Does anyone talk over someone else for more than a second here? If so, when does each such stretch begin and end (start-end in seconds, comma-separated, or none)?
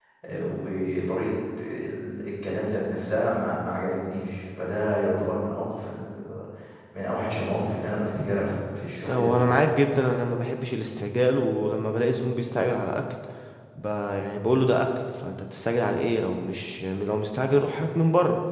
none